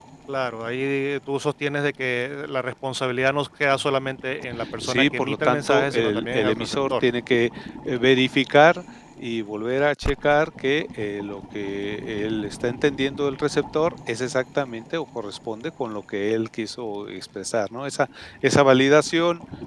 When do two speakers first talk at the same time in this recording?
4.6 s

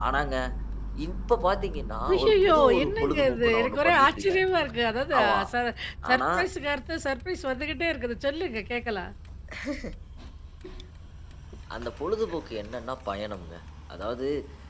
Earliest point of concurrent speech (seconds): 2.1 s

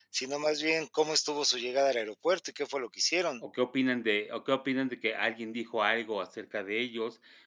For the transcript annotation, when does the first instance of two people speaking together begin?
none

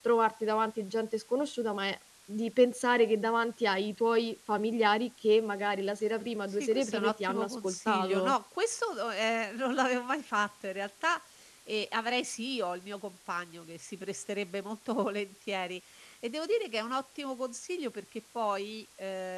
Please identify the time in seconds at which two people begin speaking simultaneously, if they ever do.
6.5 s

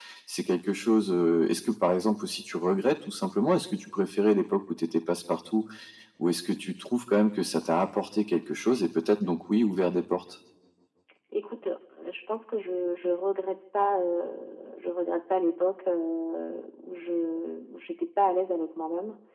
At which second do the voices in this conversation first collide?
none

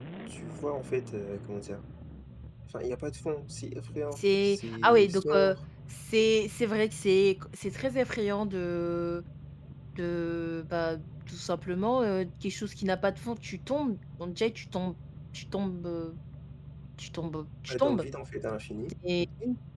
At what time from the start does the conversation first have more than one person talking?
4.1 s

